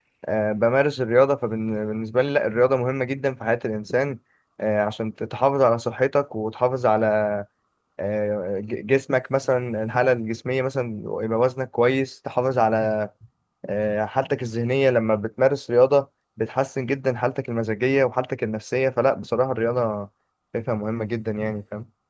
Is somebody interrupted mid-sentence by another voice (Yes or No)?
No